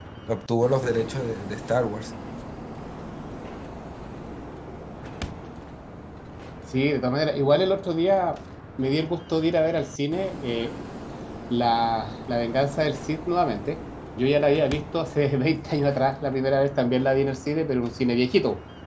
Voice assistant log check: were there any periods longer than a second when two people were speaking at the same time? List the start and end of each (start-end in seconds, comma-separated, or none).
none